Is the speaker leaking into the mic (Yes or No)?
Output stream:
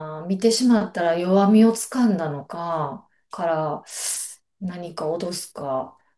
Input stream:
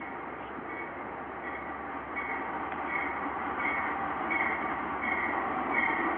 No